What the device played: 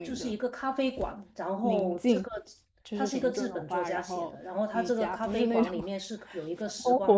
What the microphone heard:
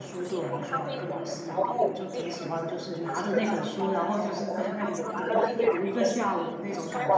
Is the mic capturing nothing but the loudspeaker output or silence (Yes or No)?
No